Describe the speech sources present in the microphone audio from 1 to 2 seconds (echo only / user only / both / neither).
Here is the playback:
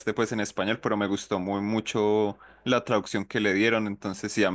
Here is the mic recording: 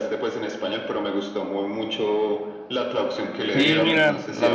echo only